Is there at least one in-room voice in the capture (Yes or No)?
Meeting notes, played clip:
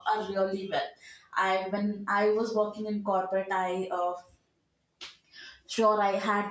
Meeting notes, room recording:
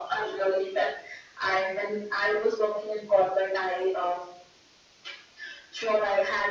No